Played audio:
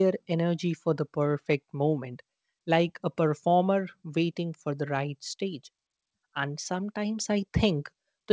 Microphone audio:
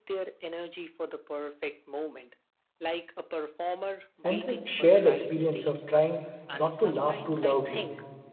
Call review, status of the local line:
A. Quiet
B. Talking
B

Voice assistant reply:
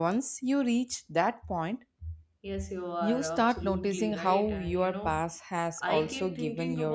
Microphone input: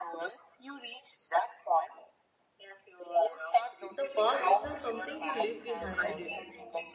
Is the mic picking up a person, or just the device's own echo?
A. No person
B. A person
B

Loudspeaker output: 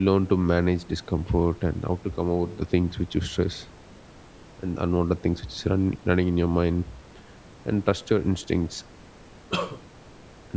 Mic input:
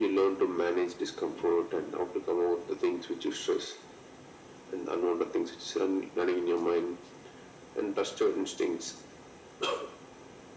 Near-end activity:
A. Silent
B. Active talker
A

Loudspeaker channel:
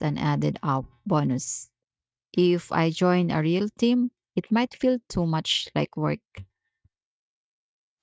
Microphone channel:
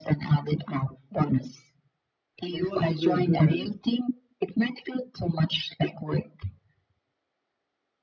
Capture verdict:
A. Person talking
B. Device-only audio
A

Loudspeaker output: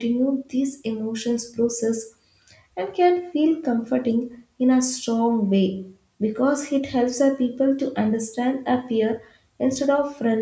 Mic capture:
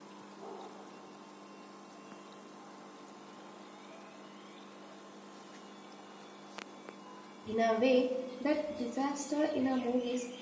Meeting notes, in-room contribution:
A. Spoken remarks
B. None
A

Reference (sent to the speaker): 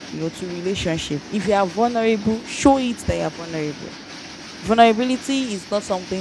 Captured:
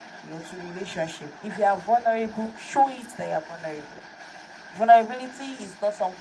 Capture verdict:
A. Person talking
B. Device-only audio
B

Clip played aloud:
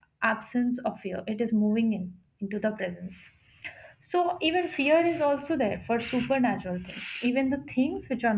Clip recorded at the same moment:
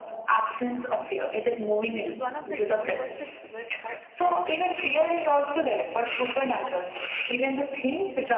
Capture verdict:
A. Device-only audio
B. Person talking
B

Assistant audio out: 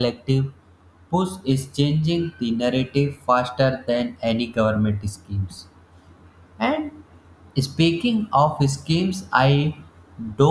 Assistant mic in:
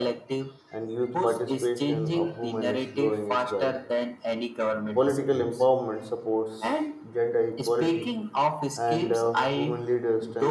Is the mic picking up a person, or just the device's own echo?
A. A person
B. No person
A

